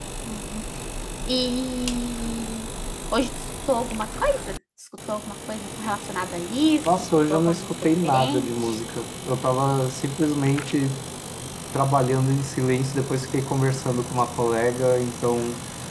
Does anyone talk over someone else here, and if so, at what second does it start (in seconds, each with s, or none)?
6.8 s